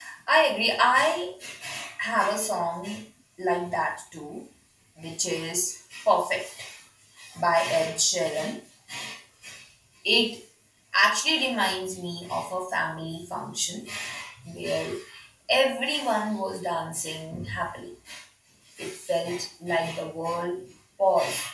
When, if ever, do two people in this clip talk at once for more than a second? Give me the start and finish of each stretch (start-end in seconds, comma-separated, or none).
none